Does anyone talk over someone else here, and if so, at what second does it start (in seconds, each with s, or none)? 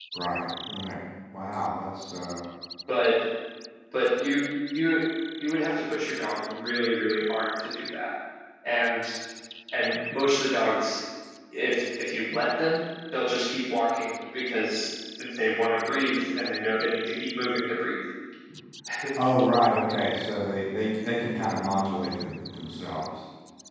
none